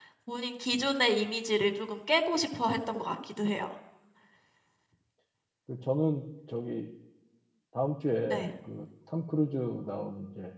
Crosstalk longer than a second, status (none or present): none